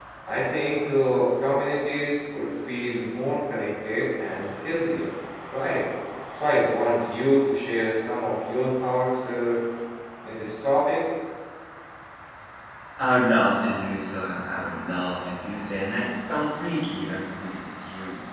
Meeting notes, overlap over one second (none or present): none